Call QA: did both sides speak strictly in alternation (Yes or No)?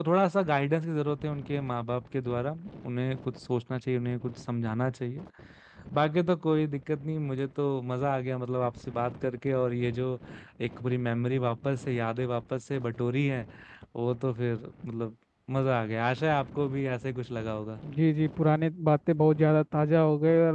Yes